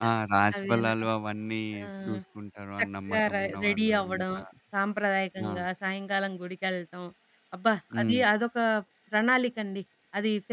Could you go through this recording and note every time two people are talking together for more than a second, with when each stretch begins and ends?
2.8-4.2

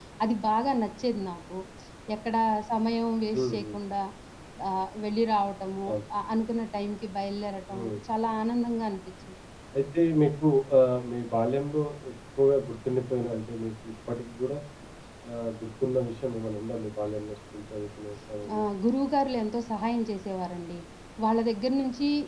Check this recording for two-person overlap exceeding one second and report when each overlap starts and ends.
none

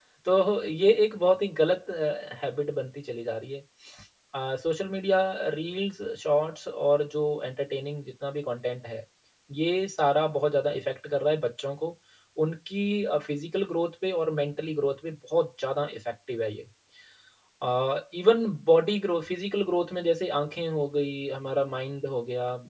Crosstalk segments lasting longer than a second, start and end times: none

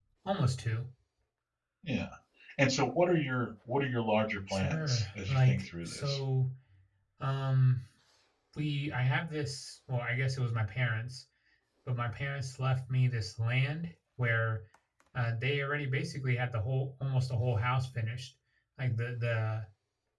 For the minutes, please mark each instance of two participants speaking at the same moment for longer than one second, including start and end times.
4.5-6.2

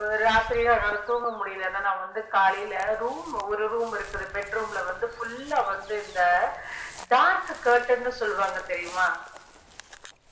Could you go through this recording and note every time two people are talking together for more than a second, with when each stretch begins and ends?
none

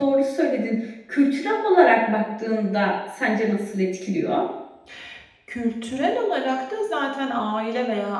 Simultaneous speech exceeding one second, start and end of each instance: none

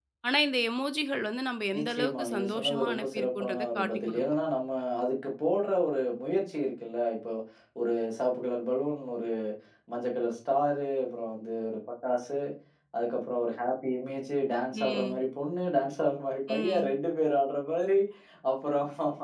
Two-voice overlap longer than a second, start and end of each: 1.8-4.2

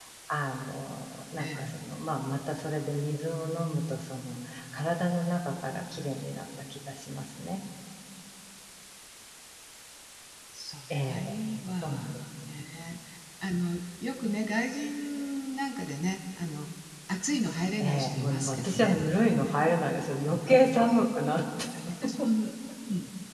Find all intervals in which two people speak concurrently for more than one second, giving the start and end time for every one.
17.8-19.0

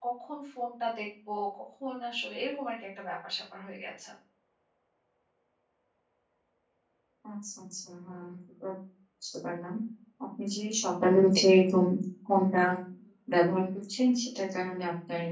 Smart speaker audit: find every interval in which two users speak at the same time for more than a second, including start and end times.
none

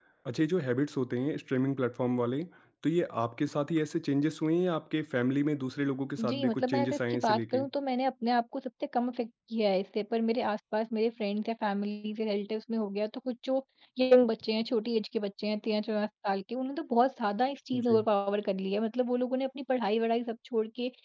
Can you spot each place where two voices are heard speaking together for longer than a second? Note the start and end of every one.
6.2-7.6

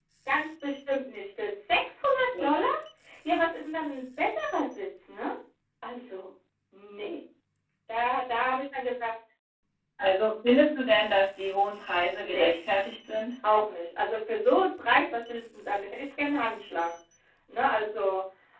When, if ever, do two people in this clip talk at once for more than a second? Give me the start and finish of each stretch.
none

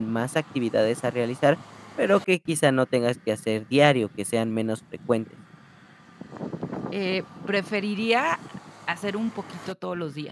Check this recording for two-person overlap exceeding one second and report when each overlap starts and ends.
none

